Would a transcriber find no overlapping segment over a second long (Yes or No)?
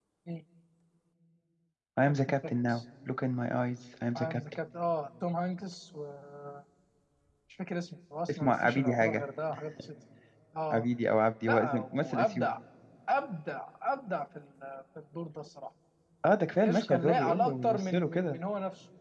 No